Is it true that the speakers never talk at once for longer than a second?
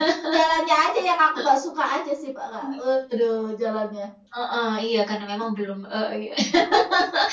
Yes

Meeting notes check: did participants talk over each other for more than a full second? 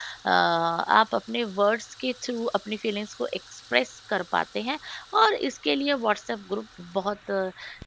No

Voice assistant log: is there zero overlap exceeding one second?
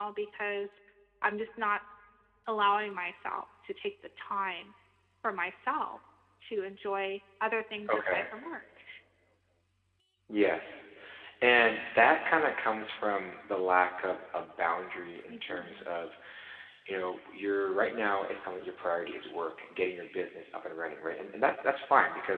Yes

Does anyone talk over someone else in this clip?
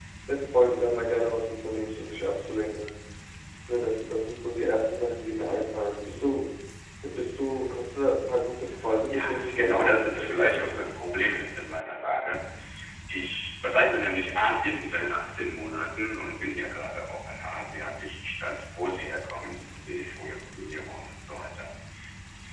Yes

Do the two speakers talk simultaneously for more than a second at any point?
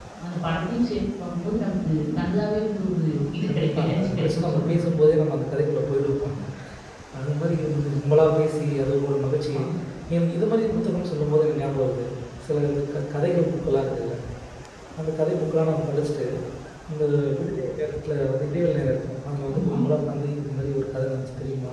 Yes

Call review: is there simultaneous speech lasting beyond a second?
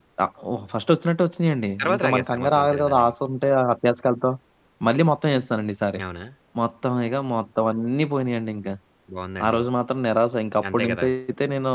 Yes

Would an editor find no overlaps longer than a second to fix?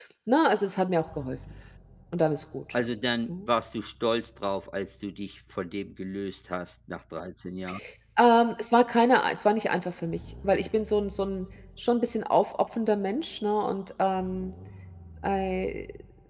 Yes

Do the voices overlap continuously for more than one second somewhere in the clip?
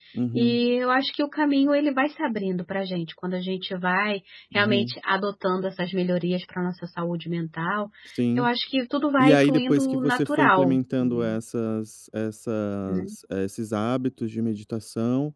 Yes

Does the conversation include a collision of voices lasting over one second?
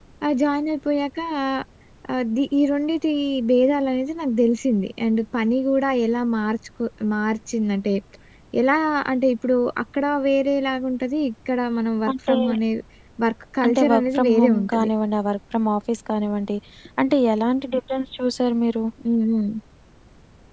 Yes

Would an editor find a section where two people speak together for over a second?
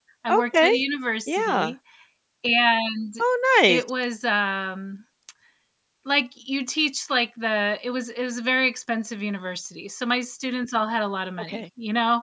No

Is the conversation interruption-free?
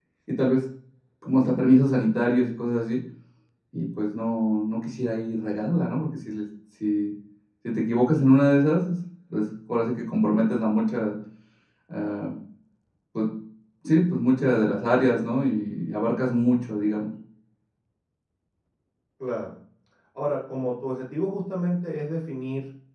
Yes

